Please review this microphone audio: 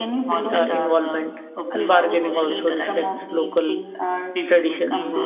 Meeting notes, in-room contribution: present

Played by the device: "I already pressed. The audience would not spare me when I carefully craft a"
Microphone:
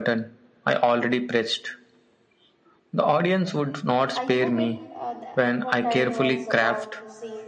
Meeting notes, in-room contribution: present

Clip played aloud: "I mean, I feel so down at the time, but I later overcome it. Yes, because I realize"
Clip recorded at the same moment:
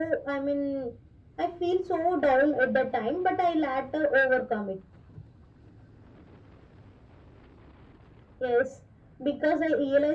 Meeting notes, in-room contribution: none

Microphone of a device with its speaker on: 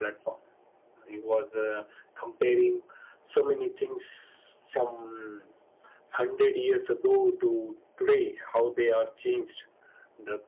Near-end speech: none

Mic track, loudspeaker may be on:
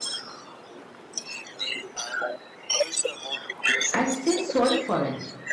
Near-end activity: present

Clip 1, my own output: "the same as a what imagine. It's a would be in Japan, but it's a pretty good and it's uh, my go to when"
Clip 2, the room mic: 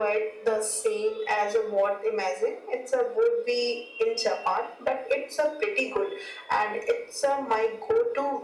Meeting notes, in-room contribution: none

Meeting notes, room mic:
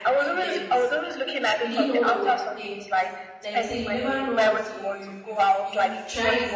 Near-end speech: present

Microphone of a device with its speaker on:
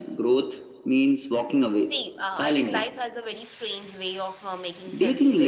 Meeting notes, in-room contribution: present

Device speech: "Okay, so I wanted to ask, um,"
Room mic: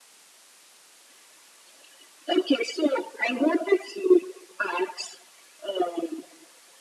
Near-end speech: none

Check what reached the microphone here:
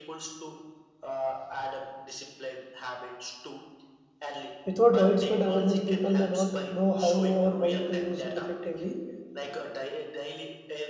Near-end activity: present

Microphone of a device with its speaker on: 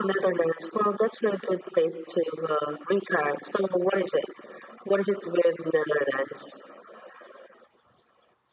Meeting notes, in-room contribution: none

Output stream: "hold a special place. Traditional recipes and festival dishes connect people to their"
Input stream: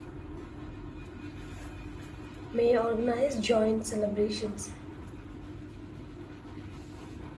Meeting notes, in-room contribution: present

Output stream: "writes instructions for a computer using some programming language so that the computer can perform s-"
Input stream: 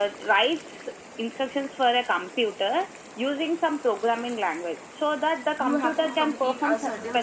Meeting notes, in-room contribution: present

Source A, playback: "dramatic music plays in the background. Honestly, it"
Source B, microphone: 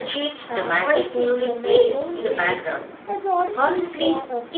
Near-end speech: present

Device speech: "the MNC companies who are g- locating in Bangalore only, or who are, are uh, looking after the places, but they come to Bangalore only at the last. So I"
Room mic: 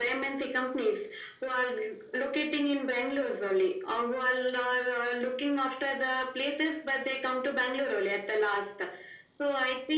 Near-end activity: none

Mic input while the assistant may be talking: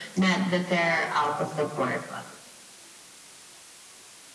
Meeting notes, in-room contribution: none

